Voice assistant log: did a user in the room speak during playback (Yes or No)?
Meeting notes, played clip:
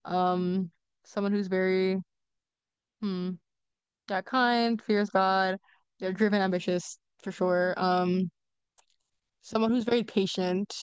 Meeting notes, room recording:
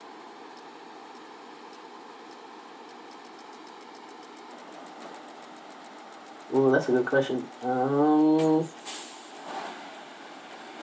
Yes